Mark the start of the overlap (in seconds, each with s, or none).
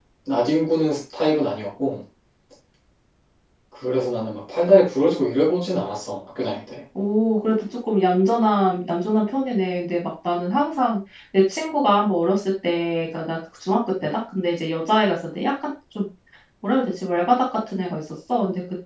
none